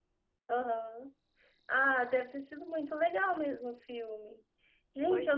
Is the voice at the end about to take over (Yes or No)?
No